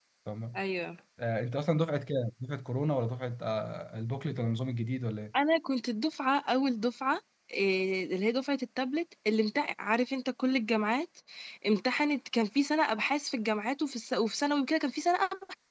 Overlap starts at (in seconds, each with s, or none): none